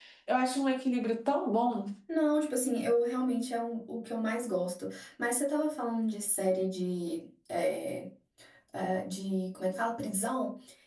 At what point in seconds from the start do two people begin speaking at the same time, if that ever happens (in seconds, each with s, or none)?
none